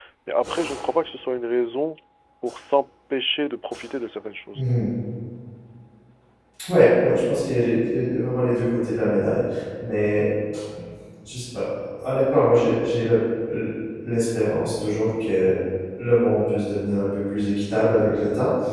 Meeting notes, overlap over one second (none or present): none